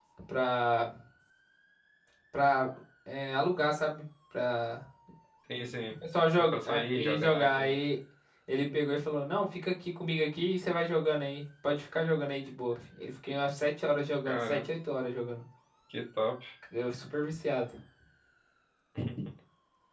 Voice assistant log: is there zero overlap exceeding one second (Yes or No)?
No